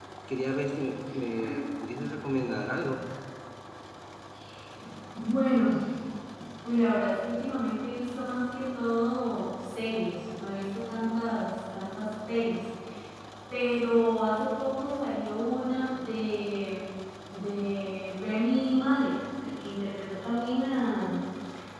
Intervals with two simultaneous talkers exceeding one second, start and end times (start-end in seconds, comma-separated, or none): none